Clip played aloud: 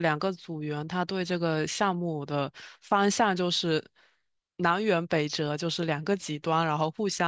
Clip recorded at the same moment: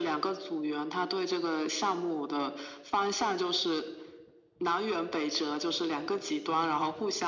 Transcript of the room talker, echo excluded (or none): none